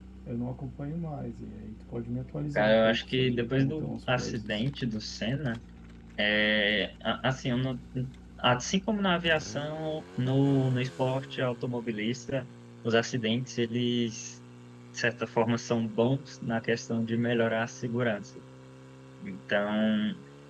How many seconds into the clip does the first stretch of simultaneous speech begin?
2.5 s

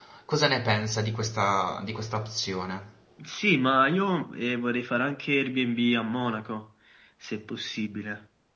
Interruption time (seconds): none

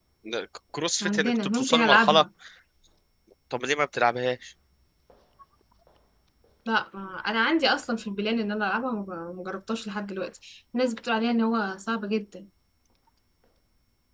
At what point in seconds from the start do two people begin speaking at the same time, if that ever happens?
1.0 s

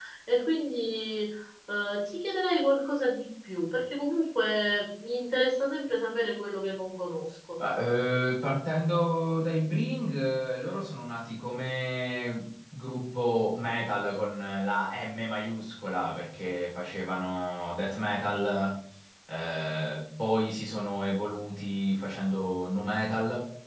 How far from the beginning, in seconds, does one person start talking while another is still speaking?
none

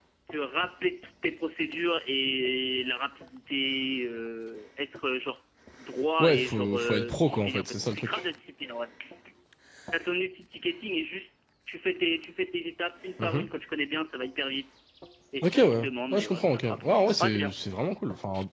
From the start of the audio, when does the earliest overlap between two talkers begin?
6.2 s

